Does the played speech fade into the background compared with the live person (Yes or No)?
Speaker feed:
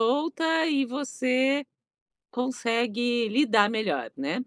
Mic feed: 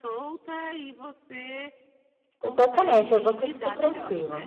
Yes